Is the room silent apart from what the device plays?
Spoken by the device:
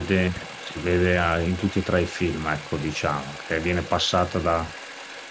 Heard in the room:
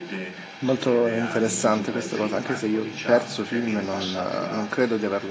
No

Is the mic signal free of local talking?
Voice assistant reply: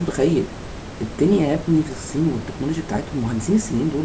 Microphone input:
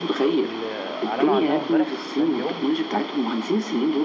No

